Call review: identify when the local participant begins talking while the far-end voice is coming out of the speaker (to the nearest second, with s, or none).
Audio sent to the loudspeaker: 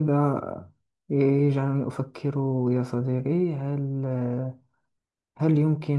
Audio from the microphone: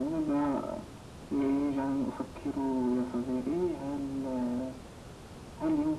none